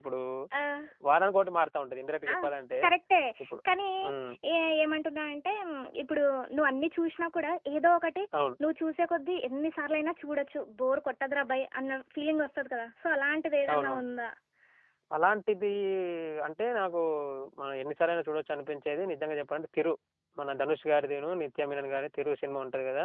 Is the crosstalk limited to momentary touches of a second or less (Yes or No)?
Yes